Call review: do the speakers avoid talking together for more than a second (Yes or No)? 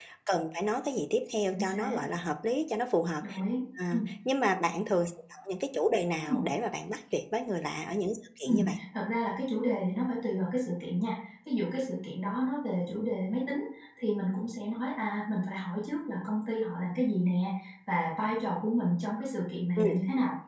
Yes